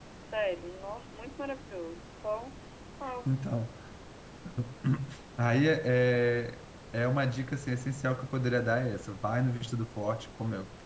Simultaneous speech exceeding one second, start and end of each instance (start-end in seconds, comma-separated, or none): none